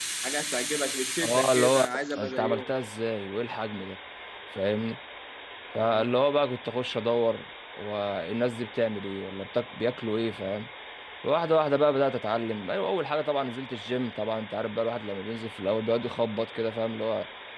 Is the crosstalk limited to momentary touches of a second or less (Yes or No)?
No